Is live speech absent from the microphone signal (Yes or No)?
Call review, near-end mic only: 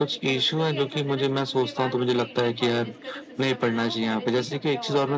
No